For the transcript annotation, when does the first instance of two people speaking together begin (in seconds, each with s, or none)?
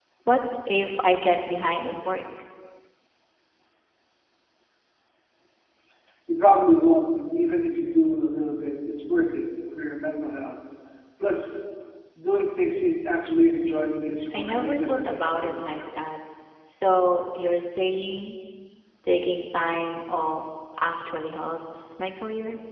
14.3 s